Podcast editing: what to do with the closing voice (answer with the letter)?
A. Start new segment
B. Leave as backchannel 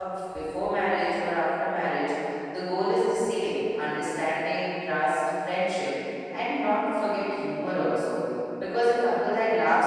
B